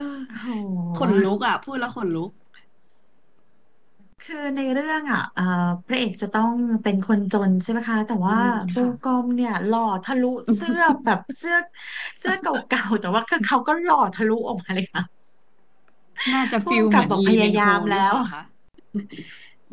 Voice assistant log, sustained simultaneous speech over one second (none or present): present